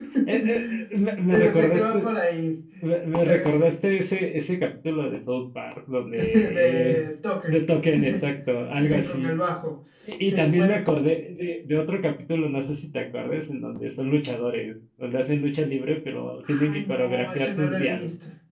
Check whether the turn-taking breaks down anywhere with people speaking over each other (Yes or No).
Yes